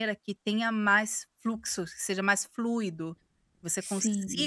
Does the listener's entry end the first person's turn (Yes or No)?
No